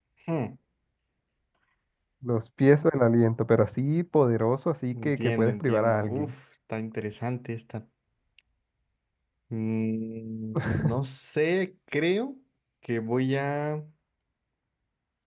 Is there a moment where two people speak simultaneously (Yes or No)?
Yes